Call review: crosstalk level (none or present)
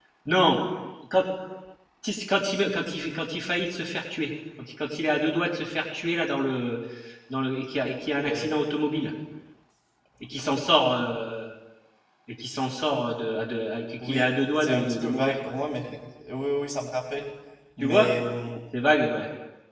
present